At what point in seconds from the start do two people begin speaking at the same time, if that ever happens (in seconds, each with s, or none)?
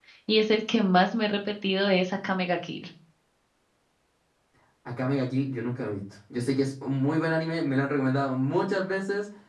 none